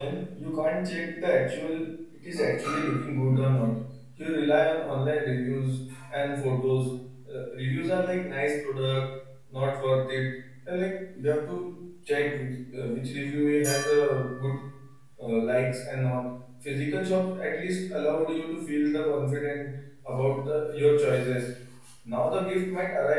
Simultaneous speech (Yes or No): No